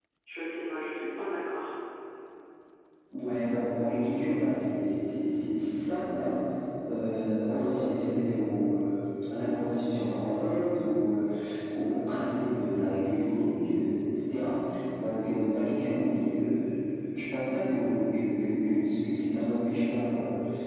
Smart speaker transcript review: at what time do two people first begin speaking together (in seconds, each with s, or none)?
none